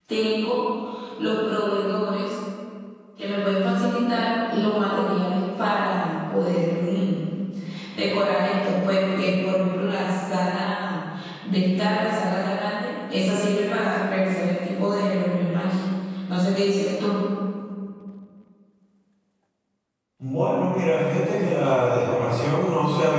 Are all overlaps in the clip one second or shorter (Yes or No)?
Yes